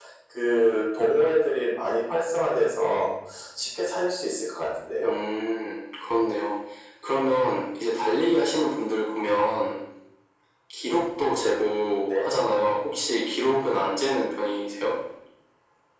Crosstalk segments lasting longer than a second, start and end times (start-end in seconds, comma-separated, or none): none